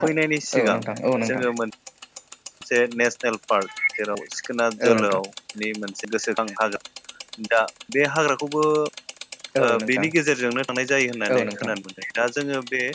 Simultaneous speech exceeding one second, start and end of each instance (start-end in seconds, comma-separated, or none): none